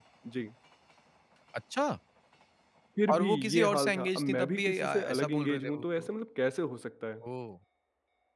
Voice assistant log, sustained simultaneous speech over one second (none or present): present